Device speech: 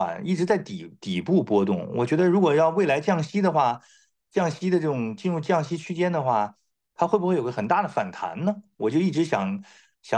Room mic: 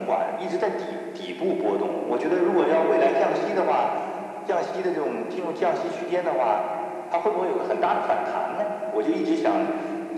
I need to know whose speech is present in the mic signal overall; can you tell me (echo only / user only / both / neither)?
echo only